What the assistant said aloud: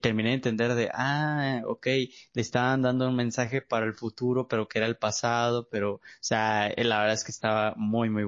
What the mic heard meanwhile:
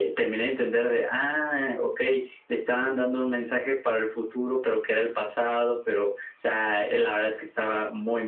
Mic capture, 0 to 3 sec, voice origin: echo only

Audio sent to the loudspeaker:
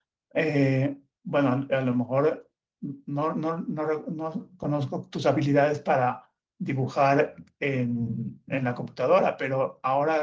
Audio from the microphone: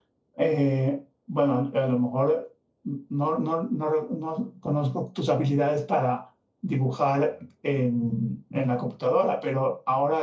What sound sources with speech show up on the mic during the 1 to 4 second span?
echo only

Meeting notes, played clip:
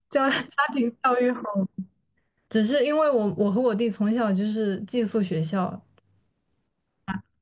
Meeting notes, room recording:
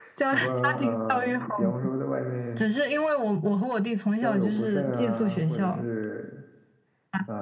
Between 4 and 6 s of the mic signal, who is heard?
both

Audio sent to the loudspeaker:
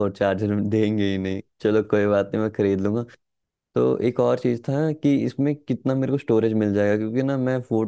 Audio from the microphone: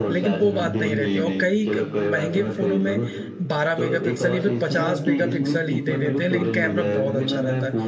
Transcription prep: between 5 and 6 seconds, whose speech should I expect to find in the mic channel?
both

